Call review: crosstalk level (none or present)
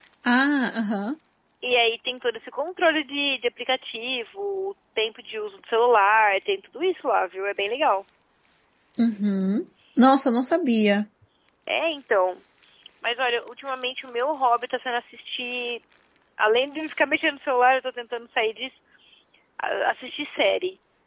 none